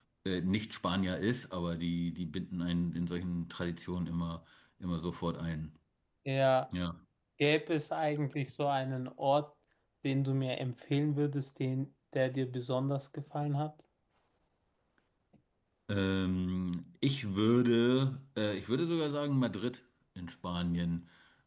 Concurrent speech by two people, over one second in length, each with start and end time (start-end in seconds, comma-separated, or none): none